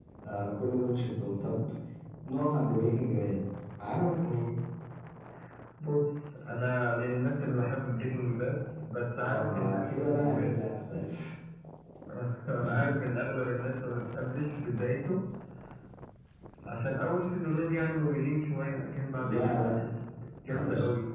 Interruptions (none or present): present